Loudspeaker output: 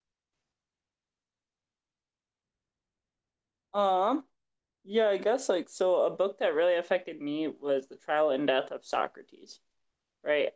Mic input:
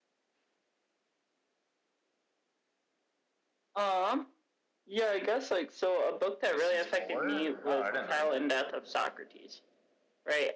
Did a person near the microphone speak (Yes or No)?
Yes